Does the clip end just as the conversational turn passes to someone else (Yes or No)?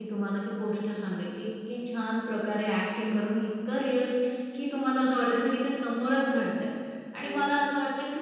No